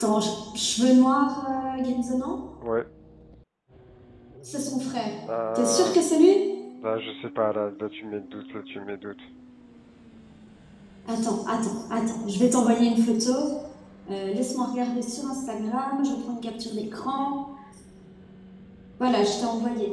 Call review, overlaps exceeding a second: none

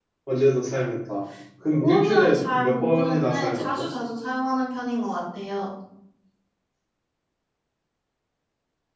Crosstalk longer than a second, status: present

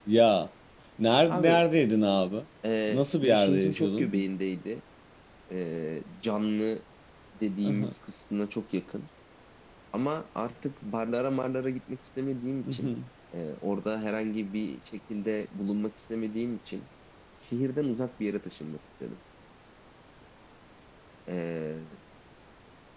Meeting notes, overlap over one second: present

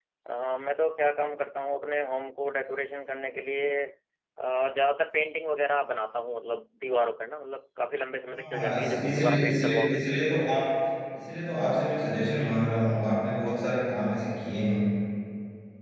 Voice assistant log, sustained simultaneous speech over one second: present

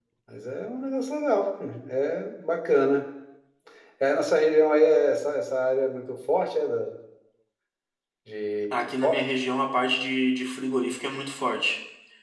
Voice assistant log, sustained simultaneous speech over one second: none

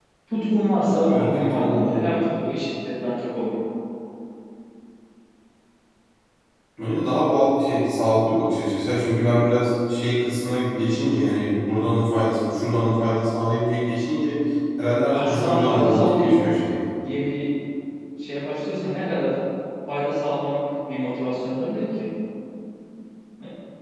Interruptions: present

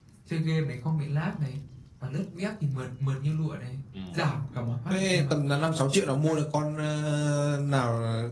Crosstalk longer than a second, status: none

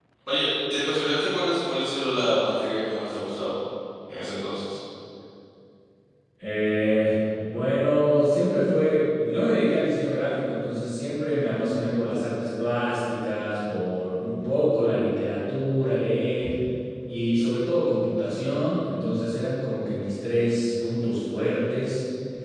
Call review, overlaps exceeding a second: none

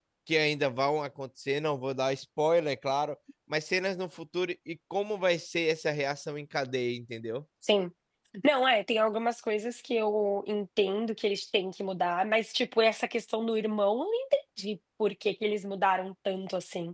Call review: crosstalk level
none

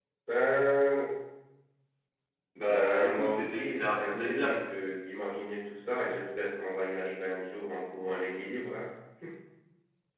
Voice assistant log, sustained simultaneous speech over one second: present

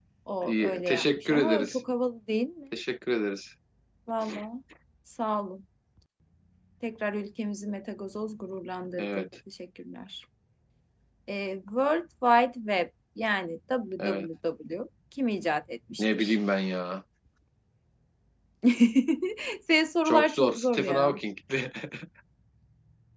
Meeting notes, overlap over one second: present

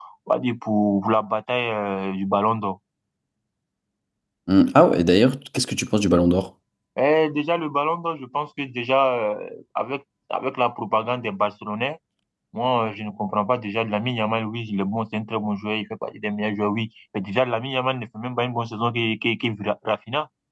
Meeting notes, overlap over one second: none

